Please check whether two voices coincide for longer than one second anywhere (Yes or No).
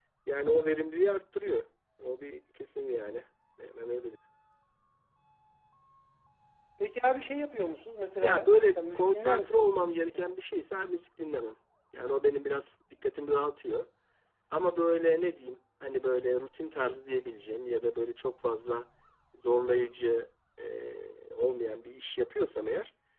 Yes